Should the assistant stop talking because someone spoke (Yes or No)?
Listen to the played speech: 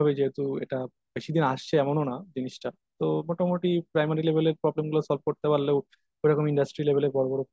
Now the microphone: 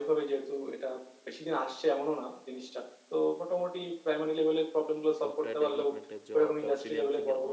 Yes